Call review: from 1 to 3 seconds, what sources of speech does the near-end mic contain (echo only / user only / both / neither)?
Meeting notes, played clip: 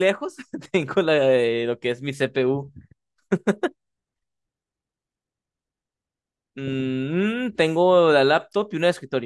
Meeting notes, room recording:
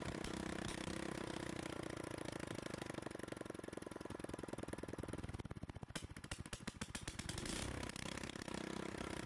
neither